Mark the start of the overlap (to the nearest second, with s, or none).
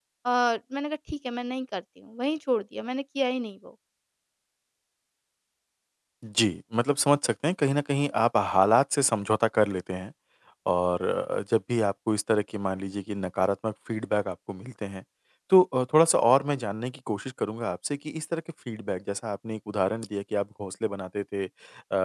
none